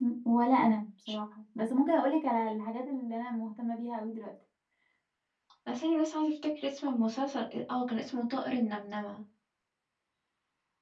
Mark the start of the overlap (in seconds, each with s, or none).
none